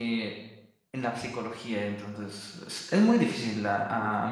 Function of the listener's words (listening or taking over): taking over